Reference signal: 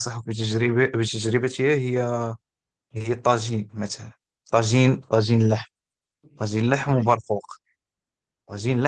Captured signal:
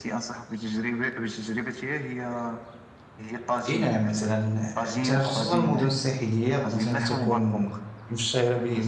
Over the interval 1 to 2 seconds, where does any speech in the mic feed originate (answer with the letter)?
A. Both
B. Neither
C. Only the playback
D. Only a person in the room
C